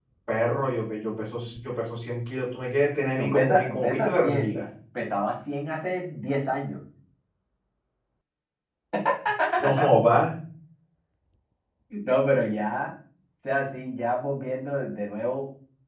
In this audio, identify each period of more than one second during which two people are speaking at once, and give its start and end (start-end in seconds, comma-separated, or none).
3.2-4.5